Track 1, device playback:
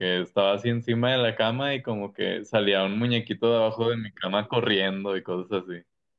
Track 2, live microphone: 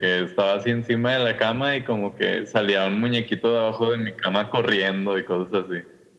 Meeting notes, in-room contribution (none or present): none